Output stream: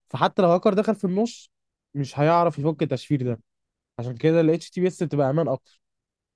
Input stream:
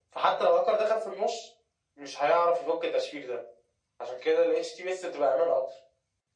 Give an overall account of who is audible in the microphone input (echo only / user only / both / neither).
echo only